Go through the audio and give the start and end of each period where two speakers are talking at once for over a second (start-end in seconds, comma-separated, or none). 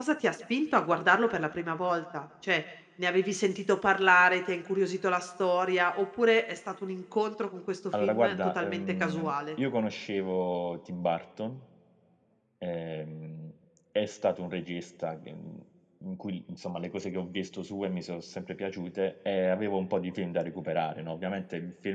8.0-9.3